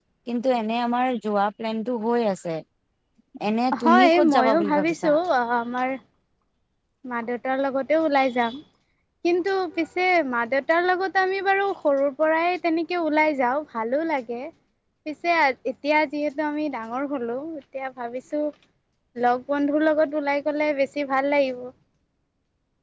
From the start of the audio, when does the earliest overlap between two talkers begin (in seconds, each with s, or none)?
3.8 s